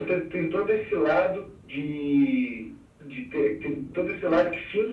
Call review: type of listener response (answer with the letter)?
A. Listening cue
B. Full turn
A